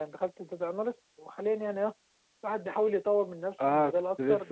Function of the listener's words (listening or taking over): taking over